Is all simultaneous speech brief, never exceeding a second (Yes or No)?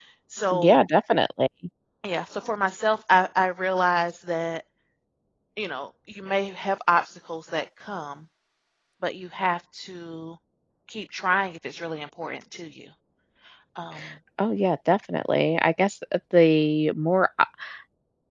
Yes